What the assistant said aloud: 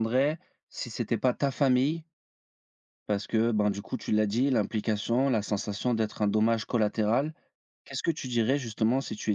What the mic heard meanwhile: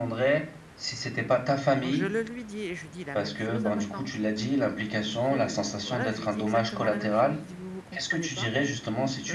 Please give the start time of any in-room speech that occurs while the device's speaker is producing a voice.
2 s

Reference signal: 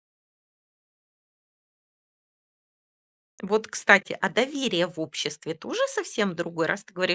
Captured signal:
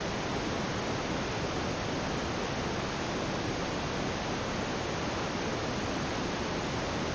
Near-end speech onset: none

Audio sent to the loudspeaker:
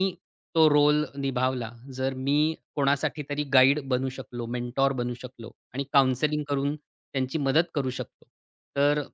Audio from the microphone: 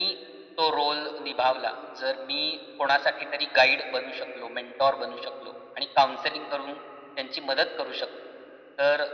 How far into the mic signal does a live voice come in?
none

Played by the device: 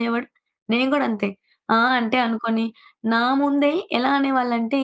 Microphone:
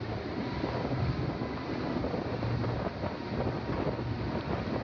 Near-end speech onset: none

